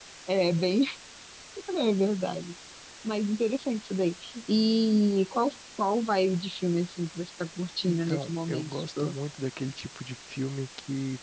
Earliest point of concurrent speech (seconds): 7.9 s

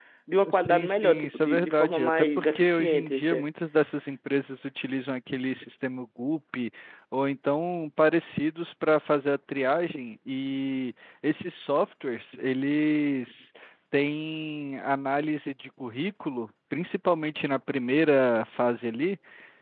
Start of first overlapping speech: 0.5 s

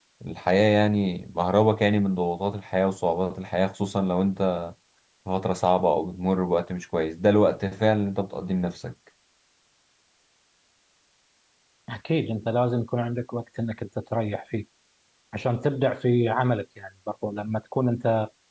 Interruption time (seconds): none

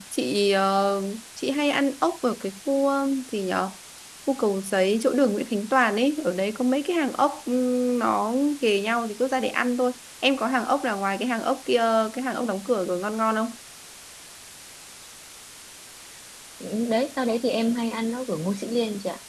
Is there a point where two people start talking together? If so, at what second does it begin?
none

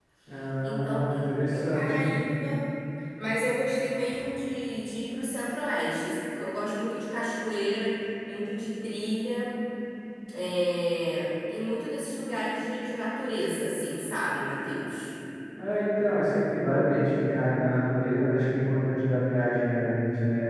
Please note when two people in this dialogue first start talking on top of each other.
0.6 s

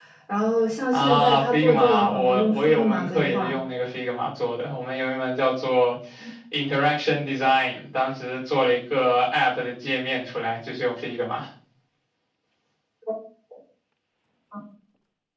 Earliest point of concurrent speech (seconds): 0.9 s

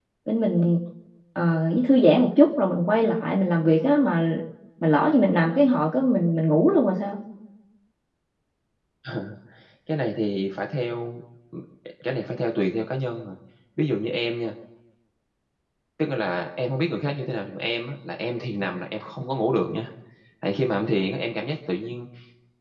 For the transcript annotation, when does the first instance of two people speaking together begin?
none

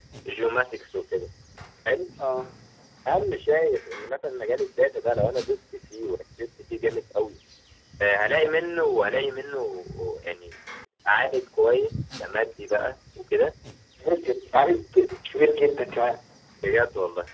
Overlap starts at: none

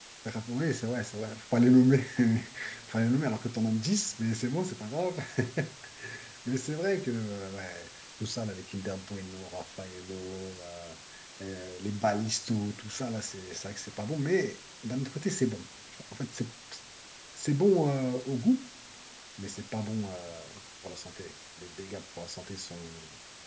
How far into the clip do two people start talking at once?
none

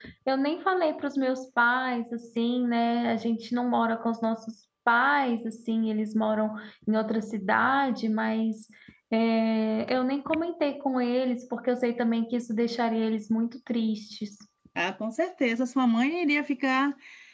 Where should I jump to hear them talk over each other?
none

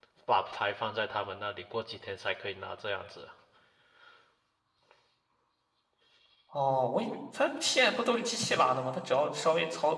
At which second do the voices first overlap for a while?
none

